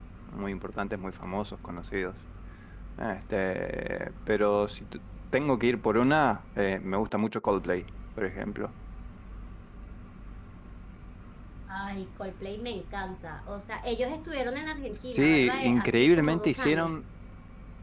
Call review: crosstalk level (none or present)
present